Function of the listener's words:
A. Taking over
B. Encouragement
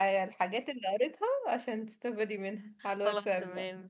A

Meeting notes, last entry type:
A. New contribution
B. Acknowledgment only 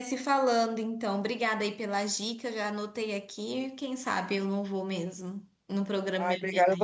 A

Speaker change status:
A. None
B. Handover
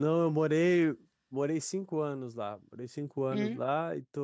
A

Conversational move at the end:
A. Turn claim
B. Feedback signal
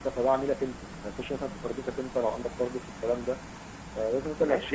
A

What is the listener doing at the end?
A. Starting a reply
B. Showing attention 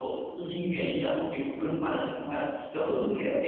B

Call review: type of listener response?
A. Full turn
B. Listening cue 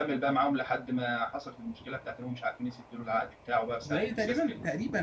A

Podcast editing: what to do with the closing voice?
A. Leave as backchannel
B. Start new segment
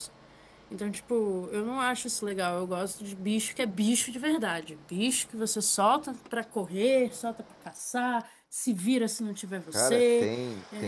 B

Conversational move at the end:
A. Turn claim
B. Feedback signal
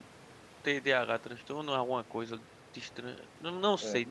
B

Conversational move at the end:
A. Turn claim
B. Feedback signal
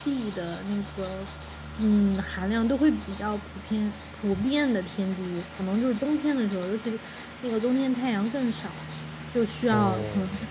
B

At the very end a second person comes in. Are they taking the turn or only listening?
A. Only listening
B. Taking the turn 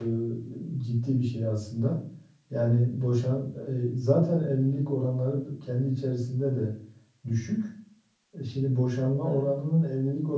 A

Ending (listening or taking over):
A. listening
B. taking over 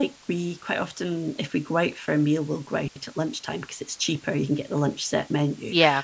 A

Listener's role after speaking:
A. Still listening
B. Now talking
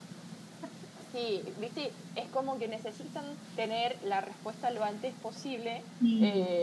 A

